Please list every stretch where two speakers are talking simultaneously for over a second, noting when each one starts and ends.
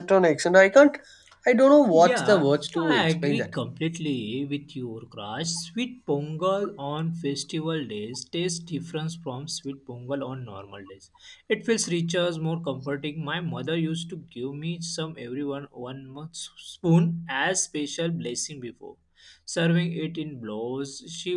1.9-3.5

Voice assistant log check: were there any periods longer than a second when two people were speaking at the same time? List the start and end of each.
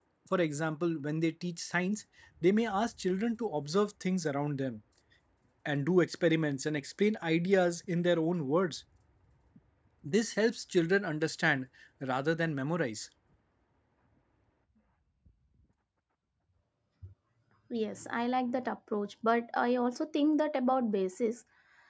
none

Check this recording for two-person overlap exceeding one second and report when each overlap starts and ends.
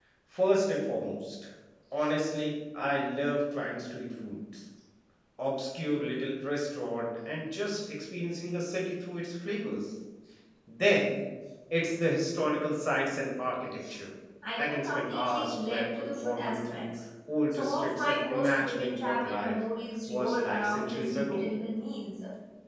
14.6-16.9, 17.5-19.6, 20.1-21.5

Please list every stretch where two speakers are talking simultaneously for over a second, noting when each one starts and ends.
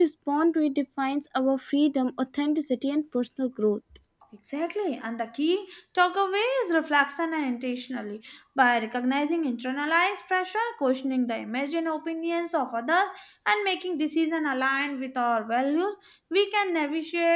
none

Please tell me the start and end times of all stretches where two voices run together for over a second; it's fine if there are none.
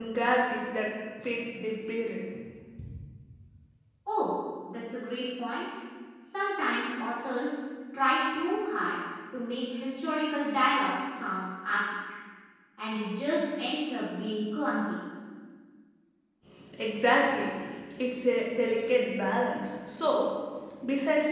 none

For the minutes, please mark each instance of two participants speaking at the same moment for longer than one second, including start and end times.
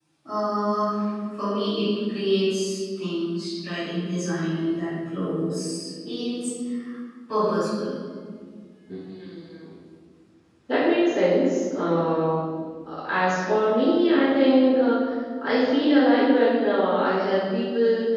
none

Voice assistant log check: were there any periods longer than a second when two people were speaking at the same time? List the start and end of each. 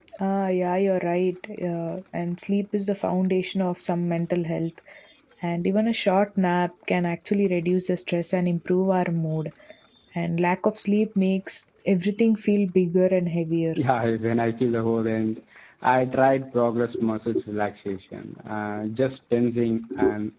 none

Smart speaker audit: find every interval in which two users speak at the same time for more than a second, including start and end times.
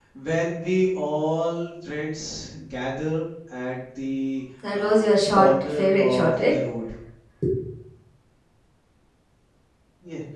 4.7-6.5

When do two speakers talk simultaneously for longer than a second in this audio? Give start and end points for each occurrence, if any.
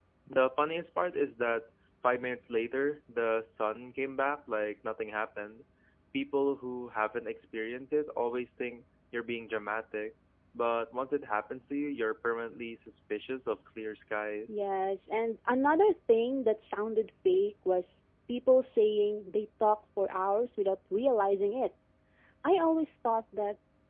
none

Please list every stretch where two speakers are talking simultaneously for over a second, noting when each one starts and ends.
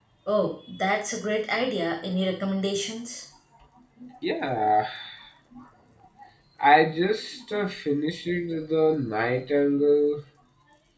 none

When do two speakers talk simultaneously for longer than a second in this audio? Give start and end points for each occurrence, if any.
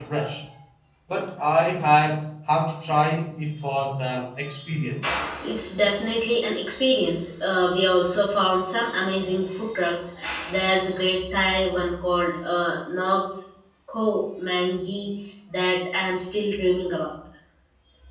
none

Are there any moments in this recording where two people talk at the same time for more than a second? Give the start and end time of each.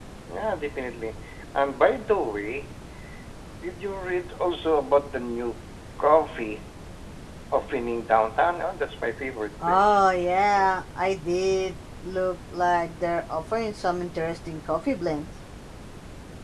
none

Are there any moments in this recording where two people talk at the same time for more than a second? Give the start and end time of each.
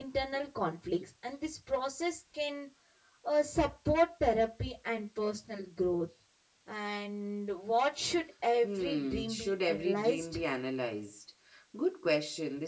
8.6-10.4

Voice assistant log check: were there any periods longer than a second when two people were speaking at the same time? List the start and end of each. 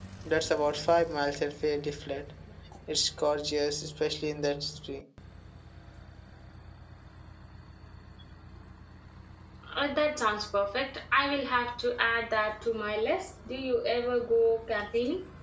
none

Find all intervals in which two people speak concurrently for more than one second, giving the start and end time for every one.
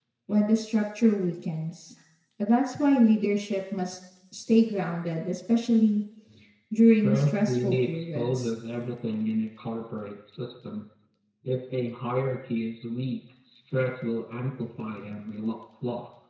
6.8-8.5

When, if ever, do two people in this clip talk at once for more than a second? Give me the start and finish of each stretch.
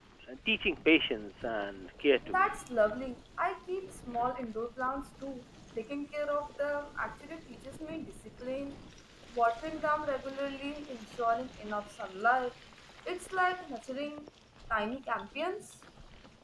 none

